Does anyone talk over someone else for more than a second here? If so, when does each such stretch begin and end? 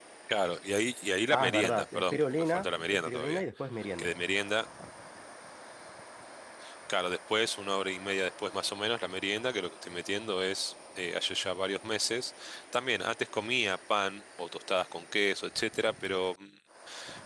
1.3-3.4

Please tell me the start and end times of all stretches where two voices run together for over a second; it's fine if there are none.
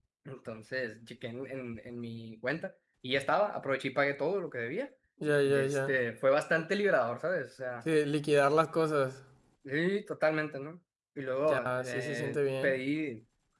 11.4-12.7

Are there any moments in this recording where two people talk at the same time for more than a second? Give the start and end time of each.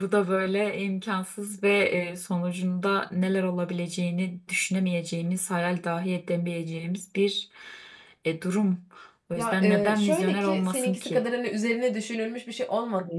9.4-11.2

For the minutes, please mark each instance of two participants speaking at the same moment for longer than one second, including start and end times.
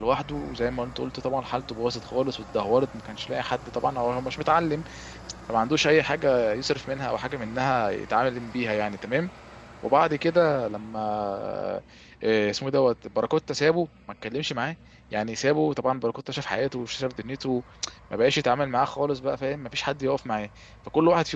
none

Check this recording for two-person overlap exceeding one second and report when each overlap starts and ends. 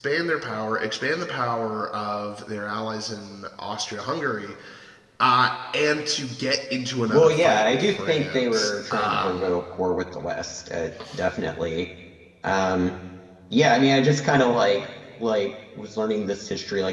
7.1-9.5

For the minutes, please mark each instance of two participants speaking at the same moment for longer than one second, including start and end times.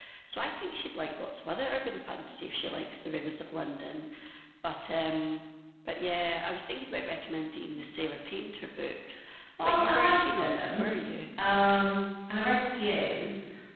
9.7-10.9

